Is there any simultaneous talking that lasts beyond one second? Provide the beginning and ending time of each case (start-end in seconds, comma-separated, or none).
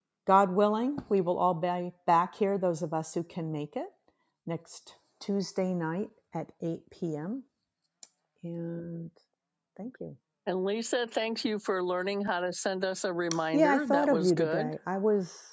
13.5-14.7